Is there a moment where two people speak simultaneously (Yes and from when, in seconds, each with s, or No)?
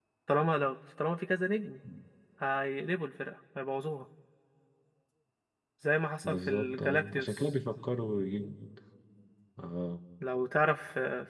Yes, from 6.2 s